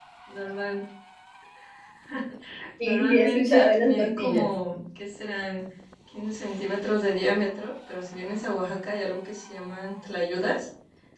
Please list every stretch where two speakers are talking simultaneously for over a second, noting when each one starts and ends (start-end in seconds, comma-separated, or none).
2.8-4.4